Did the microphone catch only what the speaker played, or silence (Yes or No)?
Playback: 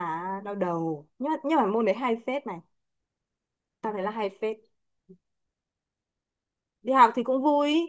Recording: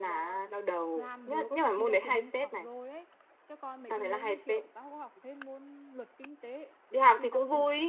No